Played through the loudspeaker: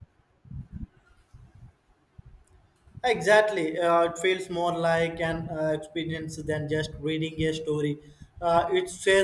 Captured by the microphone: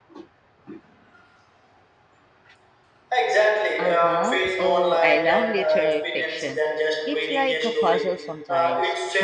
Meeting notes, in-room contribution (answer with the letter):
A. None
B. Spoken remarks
B